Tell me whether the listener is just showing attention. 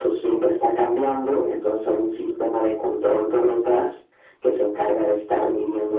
Yes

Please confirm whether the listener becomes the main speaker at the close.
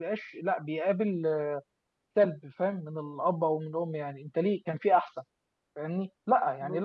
No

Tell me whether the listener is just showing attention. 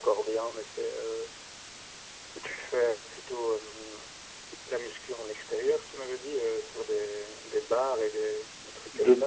No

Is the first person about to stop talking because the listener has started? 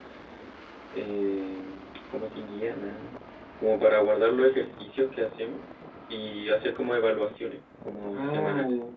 Yes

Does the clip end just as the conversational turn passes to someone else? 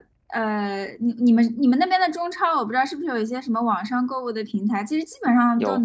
No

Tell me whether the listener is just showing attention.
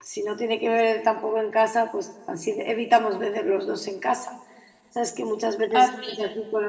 Yes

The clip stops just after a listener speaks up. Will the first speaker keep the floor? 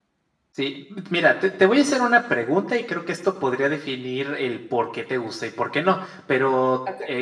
Yes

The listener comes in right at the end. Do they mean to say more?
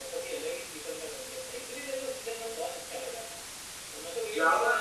No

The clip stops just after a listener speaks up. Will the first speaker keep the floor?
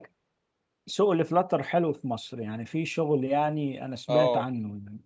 No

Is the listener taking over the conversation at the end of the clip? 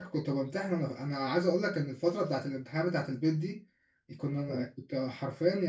No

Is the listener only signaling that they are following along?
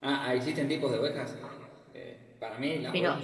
No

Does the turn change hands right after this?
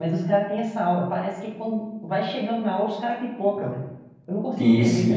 Yes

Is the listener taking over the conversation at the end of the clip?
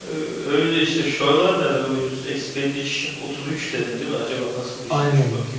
Yes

